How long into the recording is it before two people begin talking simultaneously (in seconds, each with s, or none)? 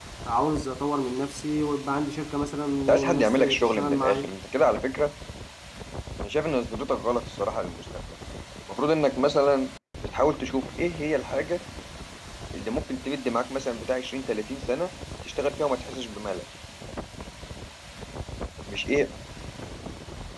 2.9 s